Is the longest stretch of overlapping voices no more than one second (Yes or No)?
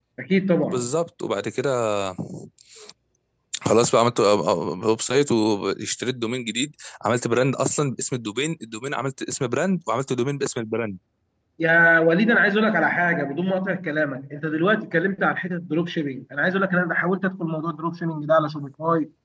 Yes